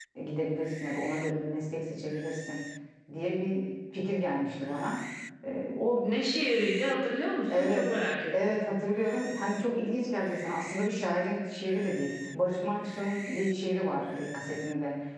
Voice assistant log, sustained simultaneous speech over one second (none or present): none